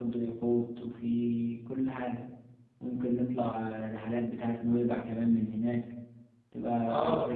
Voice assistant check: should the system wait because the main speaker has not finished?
No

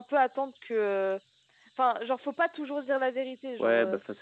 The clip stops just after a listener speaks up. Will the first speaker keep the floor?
No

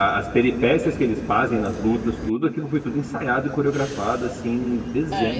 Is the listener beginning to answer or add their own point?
Yes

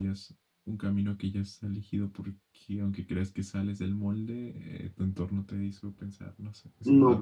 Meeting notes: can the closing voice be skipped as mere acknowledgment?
No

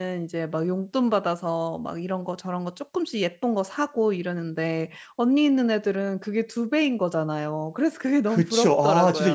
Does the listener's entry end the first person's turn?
Yes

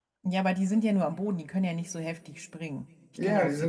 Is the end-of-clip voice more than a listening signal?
Yes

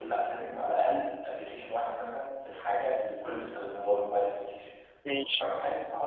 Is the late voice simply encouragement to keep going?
Yes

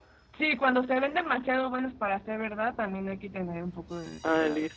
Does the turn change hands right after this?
Yes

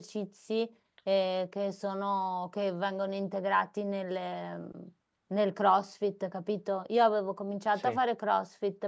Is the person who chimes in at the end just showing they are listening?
Yes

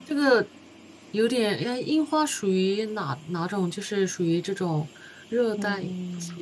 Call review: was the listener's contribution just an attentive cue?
No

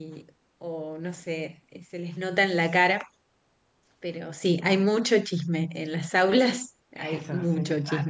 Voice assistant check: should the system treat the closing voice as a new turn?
Yes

